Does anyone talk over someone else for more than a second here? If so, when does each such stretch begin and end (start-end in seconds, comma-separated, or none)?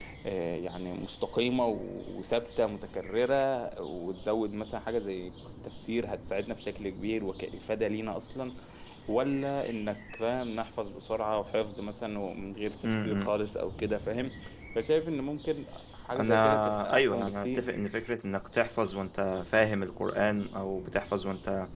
16.2-17.6